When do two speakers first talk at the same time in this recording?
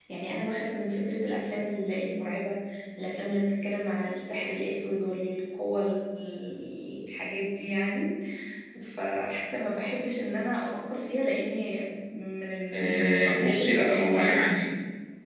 13 s

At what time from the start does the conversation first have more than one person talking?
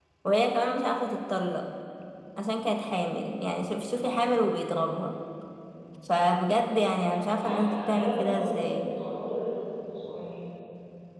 7 s

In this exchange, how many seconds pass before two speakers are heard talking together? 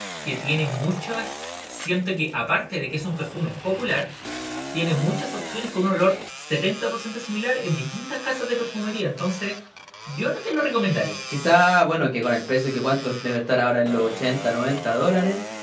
none

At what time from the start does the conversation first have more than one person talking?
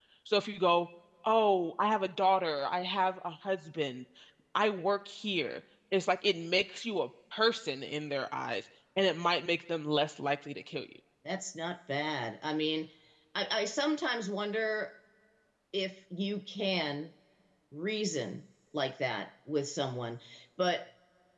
none

